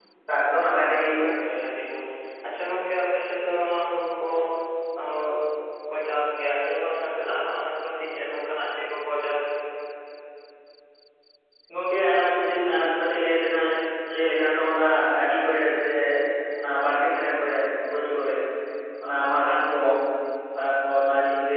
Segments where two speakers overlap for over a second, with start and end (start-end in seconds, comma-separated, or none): none